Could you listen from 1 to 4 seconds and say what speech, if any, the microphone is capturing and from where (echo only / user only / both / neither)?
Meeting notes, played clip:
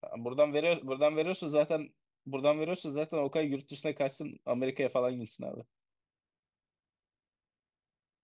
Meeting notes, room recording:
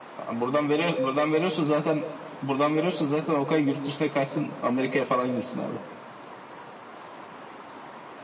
echo only